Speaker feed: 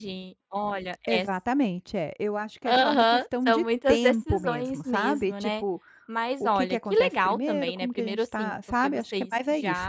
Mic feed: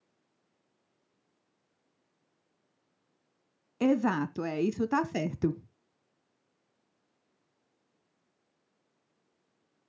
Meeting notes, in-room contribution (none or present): present